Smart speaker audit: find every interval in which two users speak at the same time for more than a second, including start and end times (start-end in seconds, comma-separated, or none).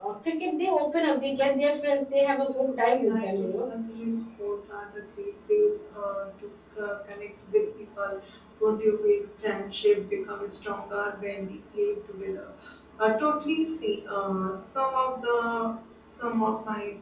2.1-3.5